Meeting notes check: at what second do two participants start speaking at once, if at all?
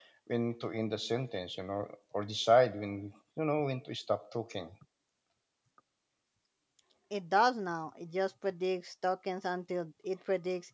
none

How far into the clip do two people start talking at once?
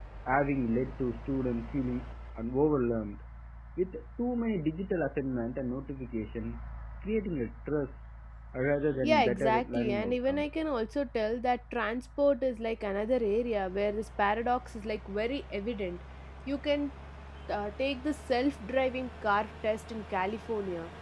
9 s

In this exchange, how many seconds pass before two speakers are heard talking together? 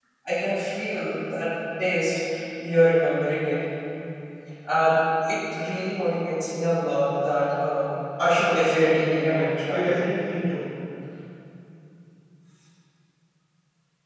8 s

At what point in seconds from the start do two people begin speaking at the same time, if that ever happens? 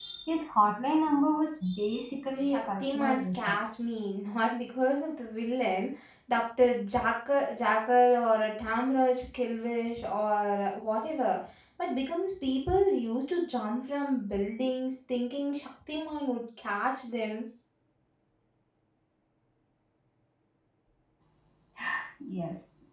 2 s

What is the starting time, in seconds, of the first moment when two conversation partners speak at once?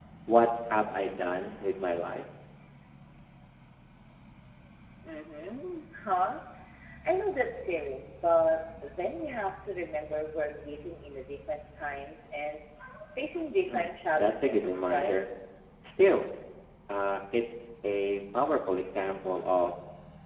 14 s

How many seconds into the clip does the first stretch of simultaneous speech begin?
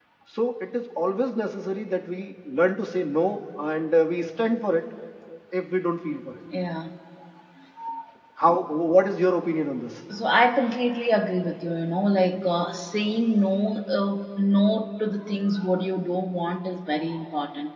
none

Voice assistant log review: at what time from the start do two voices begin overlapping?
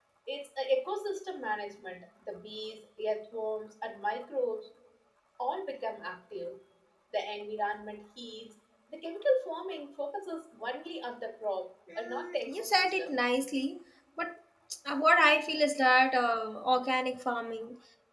12 s

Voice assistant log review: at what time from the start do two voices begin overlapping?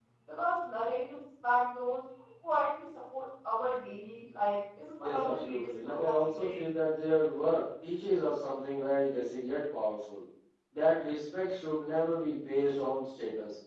5 s

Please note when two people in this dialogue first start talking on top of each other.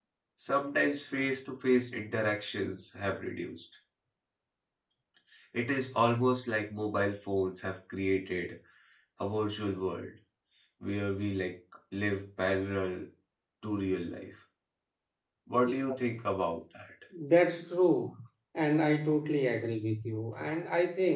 none

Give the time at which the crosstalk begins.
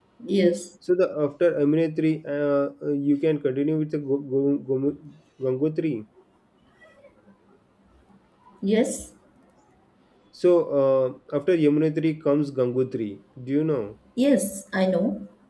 none

